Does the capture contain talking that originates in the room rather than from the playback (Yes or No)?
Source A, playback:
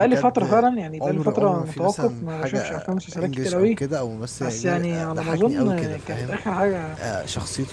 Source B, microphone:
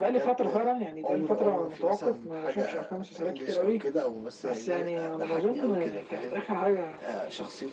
No